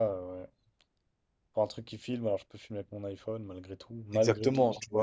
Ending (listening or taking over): taking over